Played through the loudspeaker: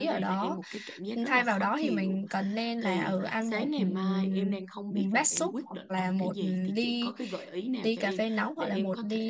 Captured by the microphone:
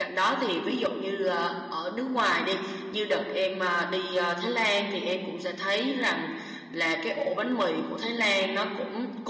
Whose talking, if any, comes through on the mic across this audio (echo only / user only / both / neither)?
user only